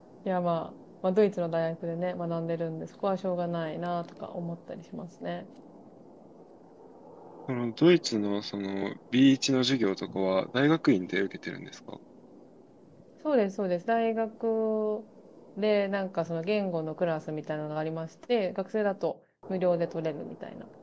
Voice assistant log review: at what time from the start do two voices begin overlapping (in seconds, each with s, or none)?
none